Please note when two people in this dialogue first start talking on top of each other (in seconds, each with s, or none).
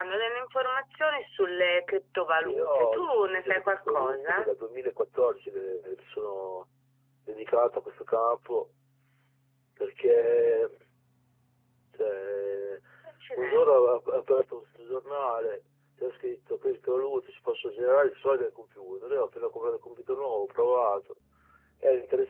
2.4 s